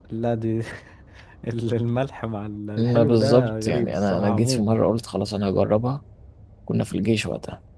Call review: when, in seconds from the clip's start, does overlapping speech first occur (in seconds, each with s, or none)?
2.8 s